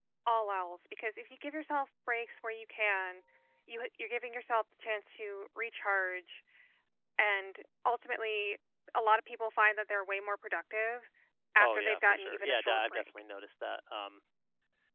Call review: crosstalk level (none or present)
present